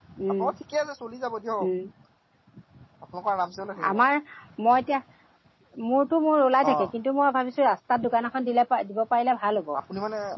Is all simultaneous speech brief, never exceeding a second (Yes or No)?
Yes